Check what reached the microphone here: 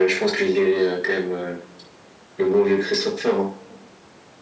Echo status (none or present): present